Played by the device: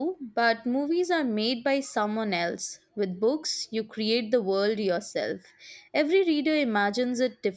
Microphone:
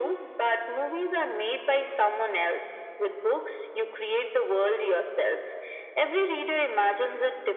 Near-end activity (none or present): none